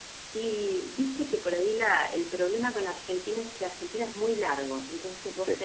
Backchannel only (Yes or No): Yes